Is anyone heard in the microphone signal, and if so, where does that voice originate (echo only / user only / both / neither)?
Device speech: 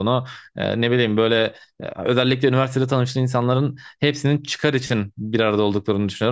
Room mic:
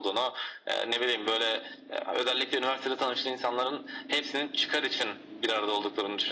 echo only